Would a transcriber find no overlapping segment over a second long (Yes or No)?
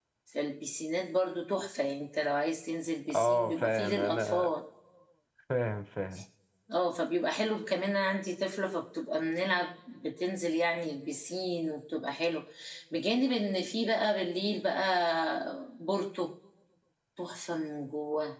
No